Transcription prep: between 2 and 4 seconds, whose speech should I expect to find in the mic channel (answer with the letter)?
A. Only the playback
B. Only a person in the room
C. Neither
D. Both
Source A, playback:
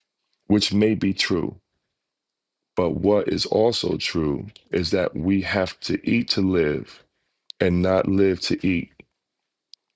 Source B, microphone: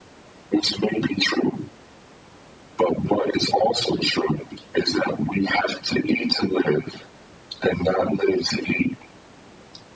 A